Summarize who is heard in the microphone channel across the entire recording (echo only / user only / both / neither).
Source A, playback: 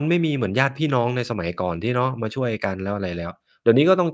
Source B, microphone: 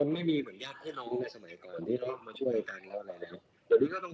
echo only